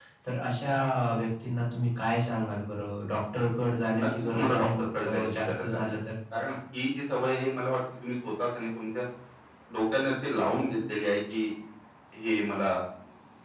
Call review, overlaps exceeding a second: present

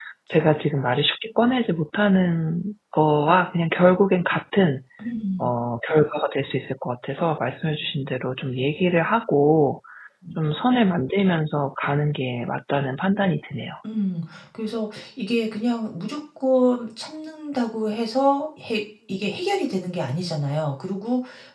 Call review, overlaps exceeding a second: none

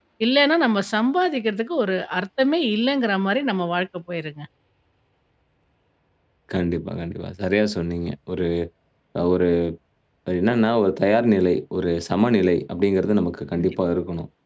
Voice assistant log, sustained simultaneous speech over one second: none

